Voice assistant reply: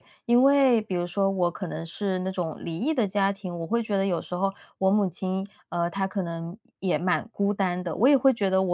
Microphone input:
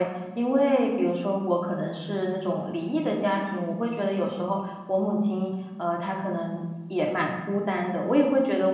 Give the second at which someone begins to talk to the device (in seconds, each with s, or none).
none